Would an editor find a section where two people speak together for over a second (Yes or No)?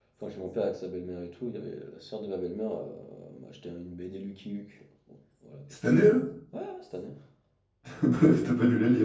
No